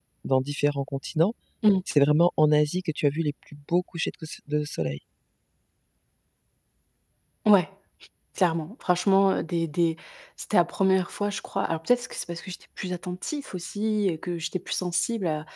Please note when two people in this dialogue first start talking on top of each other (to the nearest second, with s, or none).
none